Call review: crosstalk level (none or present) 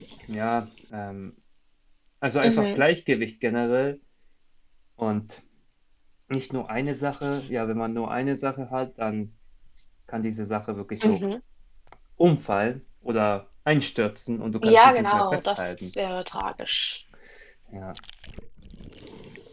present